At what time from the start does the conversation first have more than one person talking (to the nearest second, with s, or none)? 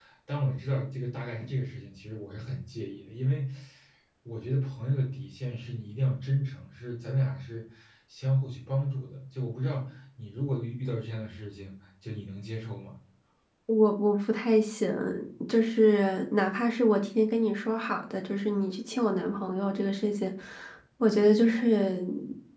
none